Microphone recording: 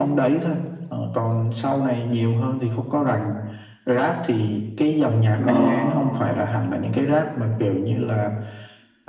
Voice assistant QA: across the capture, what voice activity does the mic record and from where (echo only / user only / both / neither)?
both